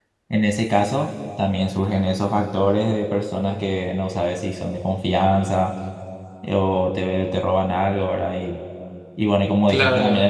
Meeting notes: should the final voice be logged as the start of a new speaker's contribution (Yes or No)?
No